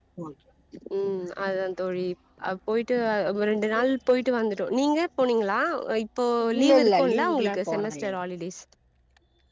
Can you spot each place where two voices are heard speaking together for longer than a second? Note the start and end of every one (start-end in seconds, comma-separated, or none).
6.6-8.1